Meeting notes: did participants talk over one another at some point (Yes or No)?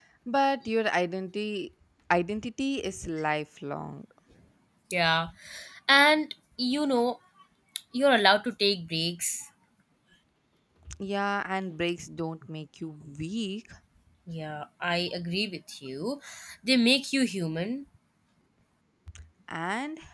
No